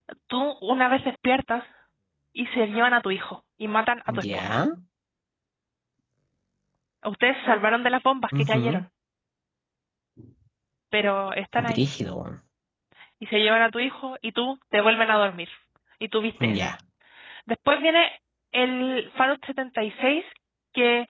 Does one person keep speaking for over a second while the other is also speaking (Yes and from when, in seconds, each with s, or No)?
No